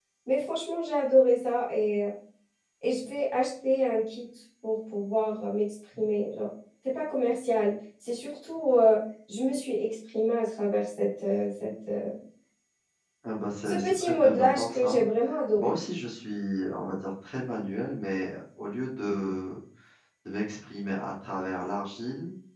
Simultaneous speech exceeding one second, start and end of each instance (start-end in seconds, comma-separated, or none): 13.7-15.0